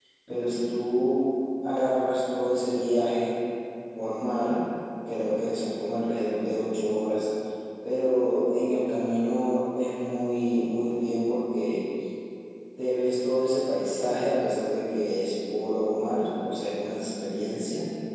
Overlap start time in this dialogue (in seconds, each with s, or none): none